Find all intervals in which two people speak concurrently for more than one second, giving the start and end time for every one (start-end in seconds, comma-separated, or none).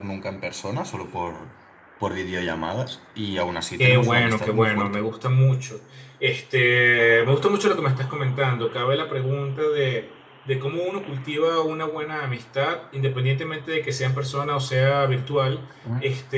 3.8-5.0